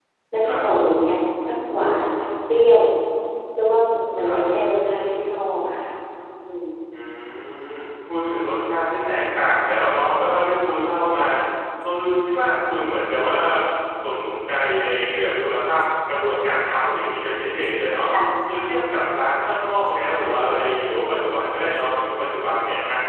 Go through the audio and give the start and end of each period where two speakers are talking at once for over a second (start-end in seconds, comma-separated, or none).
none